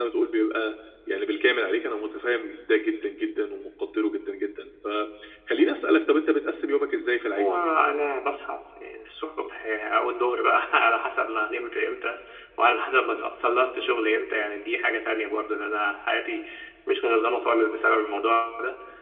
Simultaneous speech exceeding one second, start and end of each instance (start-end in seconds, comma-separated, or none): none